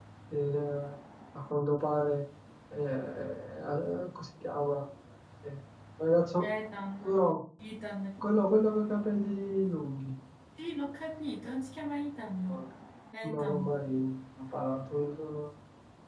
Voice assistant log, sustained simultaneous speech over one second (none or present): none